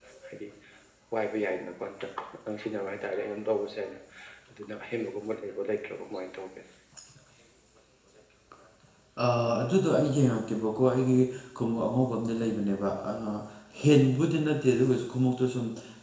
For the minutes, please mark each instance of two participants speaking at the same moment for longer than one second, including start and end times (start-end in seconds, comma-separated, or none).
none